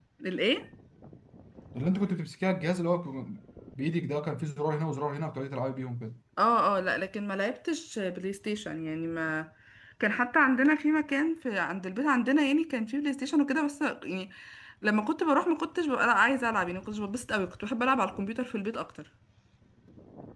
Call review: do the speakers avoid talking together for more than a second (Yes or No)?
Yes